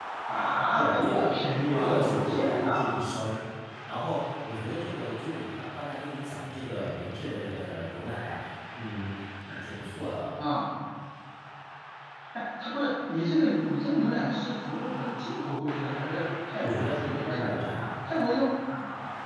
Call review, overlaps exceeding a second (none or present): present